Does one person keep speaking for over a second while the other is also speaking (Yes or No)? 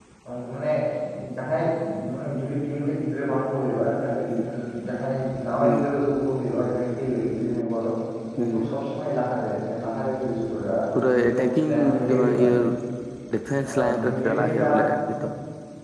Yes